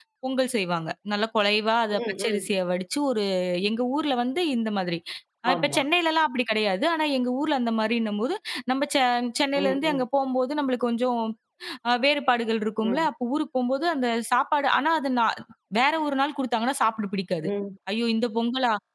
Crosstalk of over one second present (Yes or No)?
No